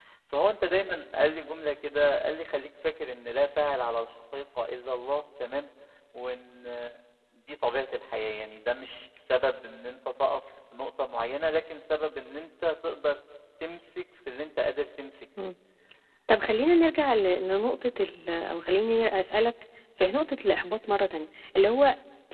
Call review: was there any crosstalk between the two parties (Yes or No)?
No